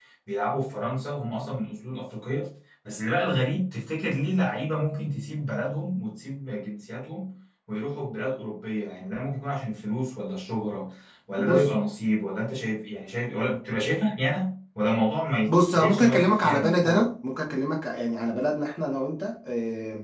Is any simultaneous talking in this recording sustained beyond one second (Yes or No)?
Yes